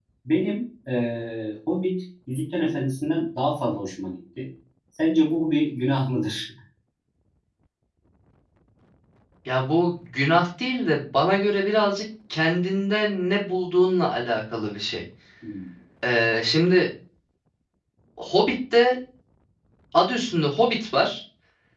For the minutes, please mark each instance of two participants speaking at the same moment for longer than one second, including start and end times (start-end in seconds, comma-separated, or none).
none